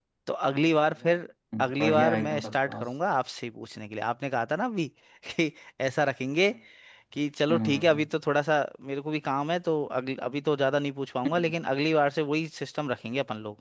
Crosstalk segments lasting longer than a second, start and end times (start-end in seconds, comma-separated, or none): 1.6-2.9